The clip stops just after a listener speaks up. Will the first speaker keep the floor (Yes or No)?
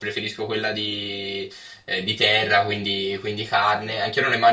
Yes